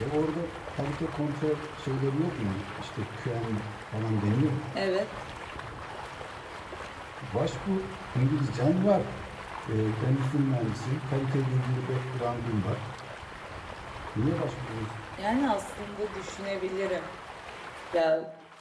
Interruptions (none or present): none